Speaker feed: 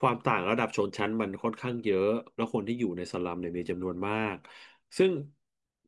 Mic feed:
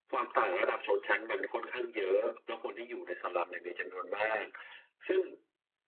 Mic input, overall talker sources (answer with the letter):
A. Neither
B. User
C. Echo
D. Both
C